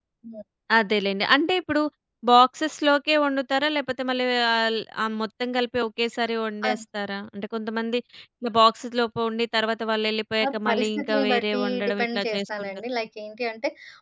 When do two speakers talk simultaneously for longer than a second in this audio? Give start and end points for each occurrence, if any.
10.4-12.8

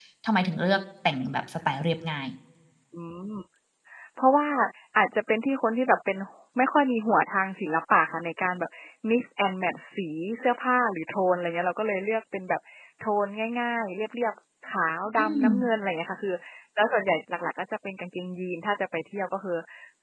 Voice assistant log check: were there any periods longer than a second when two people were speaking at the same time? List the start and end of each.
none

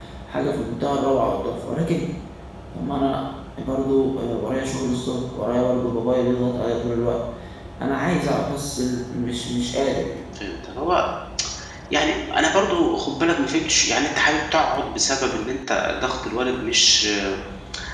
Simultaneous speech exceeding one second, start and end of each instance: none

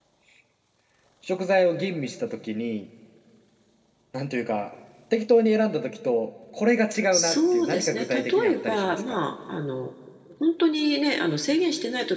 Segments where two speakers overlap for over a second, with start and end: 7.1-9.2

